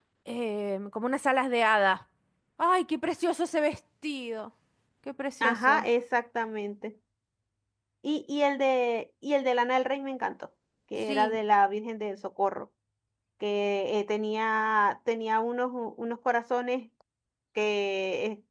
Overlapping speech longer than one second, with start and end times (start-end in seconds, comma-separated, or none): none